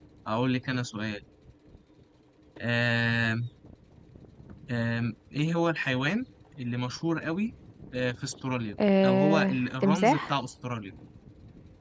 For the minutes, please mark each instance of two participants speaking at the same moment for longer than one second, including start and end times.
9.0-10.3

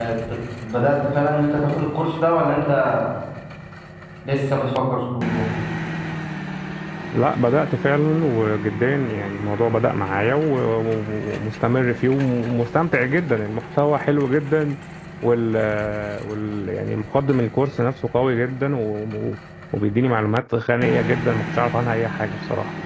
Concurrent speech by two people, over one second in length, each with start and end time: none

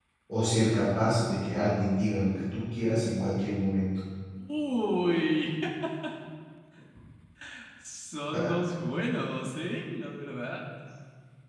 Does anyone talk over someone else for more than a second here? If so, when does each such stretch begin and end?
none

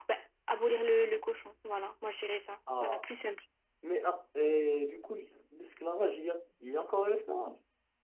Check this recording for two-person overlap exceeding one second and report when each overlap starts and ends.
none

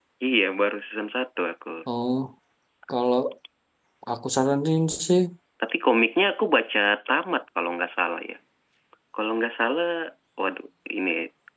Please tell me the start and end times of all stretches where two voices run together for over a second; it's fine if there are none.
none

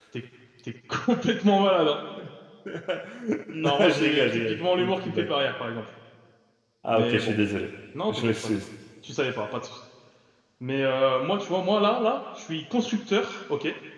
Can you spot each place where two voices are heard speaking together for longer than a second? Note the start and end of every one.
3.6-5.3

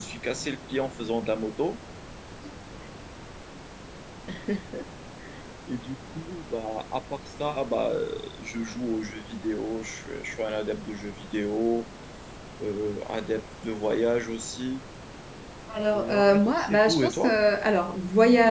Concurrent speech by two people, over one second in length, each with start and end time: 15.9-17.4

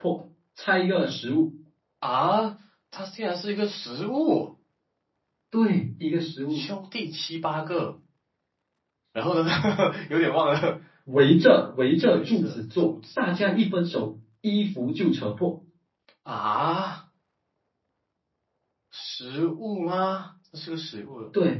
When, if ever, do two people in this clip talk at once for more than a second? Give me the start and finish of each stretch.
12.1-13.5

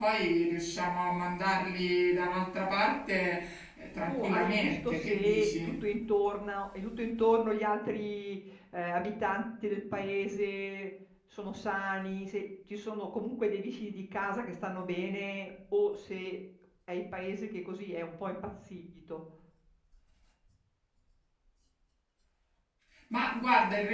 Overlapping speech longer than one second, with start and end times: 4.1-5.7

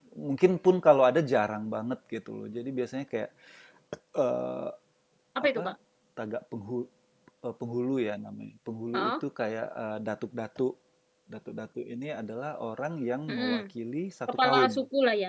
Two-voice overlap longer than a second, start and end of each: none

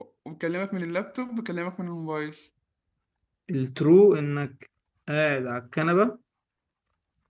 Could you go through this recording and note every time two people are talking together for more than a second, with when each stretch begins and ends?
none

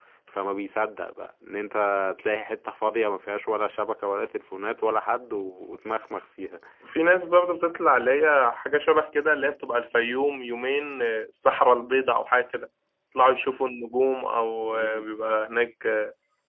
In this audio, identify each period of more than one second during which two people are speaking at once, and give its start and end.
none

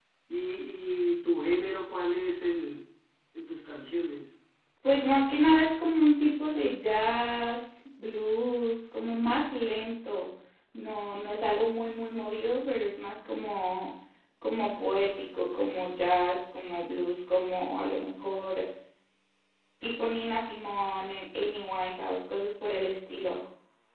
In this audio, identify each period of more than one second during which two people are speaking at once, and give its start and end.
none

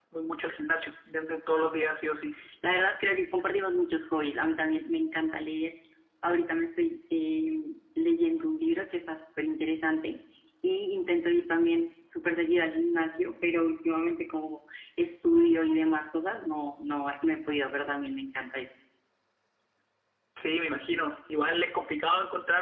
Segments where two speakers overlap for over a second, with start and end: none

